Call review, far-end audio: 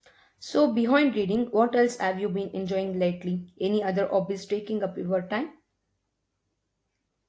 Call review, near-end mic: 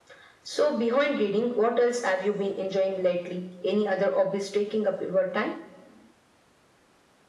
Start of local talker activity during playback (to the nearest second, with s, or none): none